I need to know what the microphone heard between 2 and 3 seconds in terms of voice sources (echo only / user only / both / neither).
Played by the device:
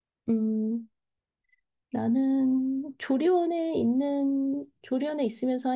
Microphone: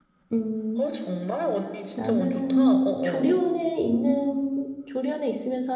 both